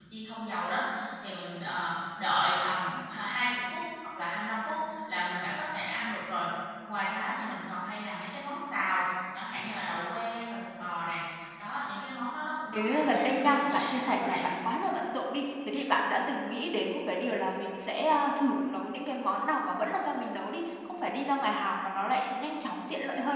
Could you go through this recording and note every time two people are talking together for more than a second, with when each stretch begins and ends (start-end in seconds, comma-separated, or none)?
12.7-14.4